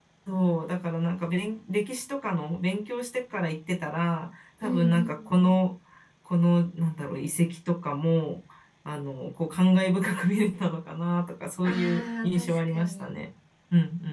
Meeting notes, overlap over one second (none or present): present